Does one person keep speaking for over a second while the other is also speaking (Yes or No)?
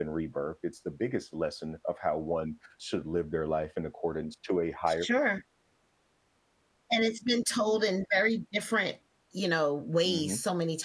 No